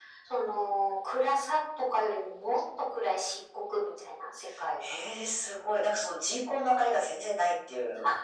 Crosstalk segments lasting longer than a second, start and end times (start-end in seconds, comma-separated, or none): none